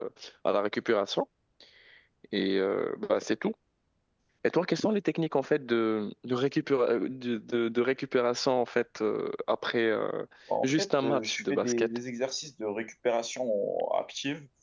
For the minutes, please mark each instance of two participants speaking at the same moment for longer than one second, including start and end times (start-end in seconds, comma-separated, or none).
10.6-11.9